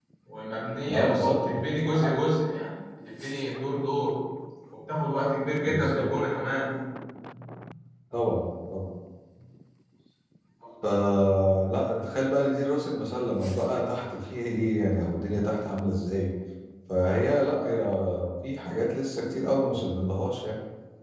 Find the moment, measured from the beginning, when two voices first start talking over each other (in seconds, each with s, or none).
0.9 s